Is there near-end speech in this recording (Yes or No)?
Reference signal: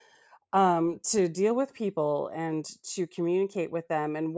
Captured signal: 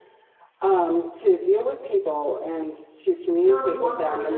Yes